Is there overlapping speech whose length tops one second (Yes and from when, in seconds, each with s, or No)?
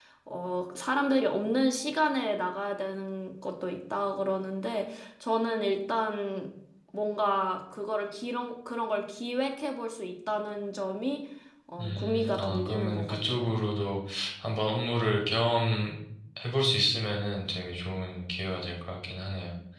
Yes, from 11.8 s